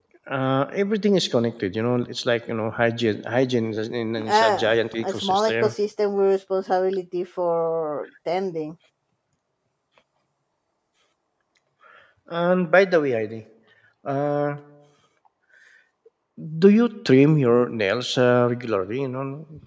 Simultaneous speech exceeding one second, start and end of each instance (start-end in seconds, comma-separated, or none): 4.3-5.7